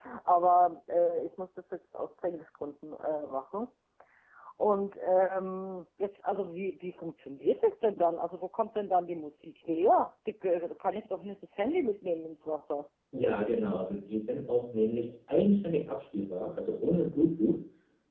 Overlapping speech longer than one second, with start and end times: none

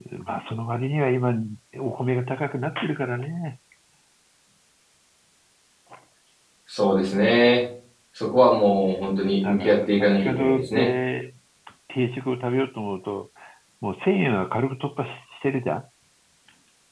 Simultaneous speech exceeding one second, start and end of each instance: 9.4-10.9

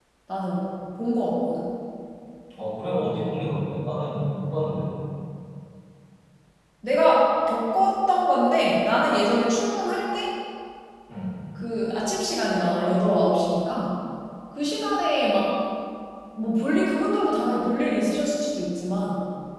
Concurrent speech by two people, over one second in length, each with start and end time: none

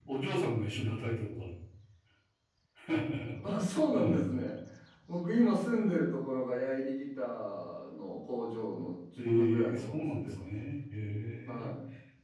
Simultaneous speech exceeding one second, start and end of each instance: 9.2-10.4

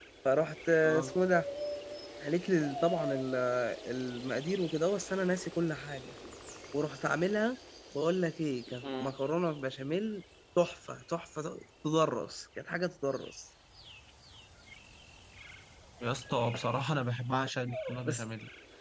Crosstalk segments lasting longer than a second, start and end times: none

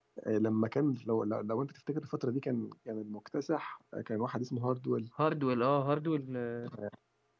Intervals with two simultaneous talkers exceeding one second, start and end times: none

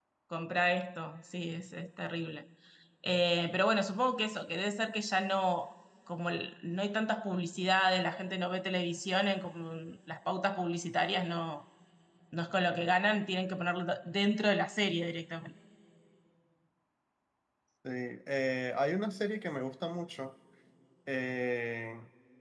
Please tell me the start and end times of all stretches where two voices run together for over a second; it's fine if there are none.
none

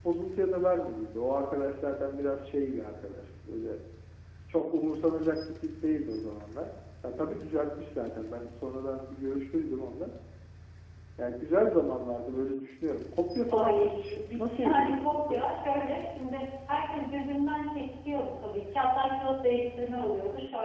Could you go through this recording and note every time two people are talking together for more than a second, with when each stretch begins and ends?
13.5-15.4

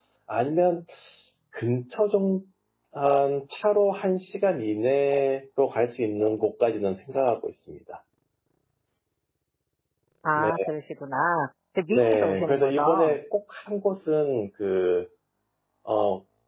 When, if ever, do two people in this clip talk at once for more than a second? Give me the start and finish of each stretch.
11.9-13.2

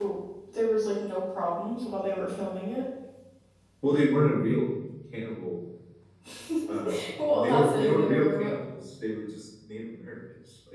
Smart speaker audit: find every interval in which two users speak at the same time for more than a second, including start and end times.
7.3-8.5

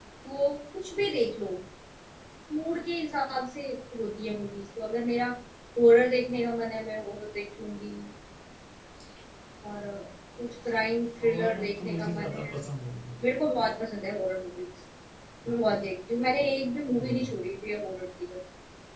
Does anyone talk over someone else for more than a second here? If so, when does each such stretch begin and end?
11.2-12.5

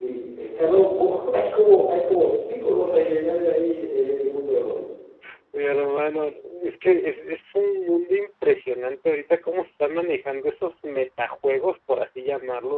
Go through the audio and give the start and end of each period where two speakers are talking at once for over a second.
none

